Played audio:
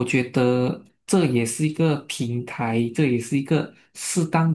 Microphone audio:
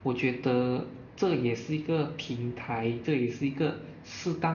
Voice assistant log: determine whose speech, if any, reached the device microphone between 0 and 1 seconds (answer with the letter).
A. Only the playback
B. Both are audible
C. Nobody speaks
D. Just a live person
A